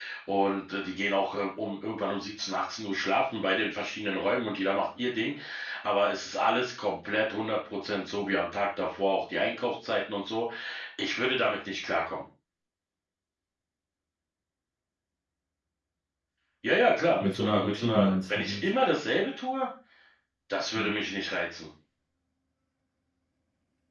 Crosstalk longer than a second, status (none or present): present